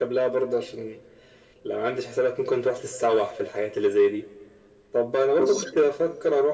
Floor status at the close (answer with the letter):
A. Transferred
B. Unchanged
B